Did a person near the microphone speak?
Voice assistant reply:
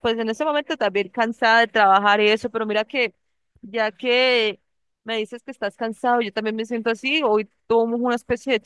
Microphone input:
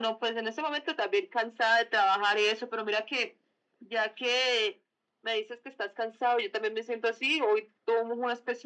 No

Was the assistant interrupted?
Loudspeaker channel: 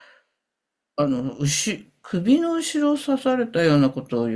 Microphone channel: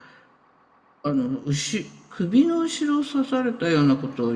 No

